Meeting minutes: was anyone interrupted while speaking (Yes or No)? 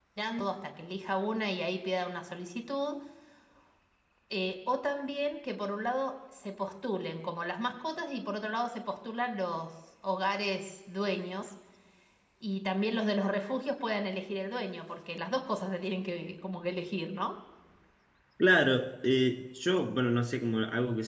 No